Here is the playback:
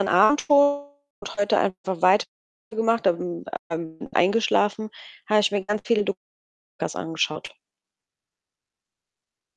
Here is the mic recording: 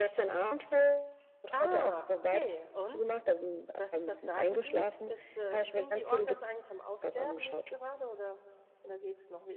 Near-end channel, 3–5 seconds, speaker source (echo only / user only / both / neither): both